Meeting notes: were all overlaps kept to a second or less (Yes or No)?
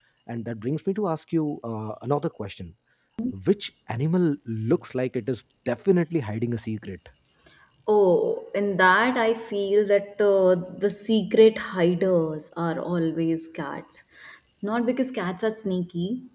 Yes